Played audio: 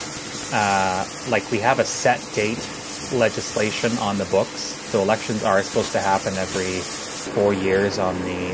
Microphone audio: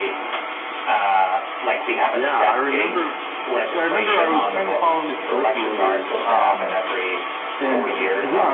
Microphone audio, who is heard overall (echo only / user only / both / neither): both